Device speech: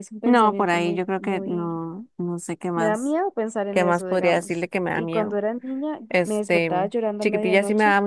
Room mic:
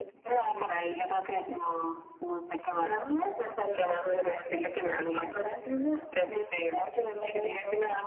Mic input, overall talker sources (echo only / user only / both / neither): echo only